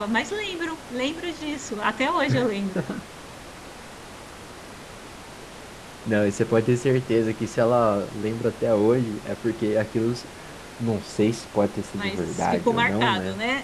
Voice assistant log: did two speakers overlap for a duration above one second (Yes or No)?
Yes